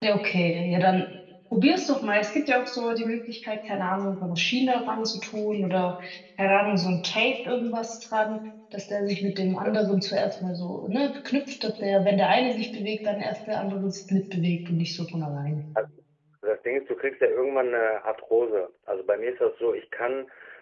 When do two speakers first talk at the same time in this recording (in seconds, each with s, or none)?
none